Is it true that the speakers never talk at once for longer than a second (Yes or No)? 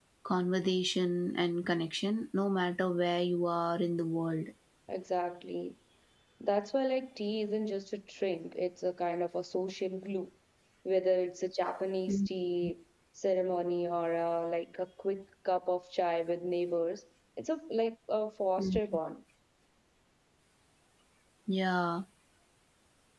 Yes